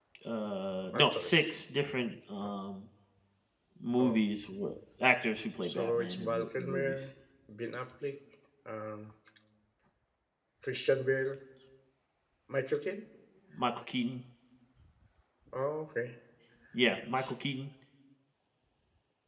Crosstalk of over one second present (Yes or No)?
Yes